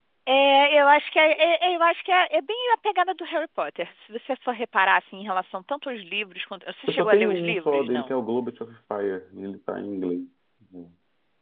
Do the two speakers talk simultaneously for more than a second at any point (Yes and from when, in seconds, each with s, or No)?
Yes, from 6.9 s